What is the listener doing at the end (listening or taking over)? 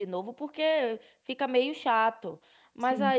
listening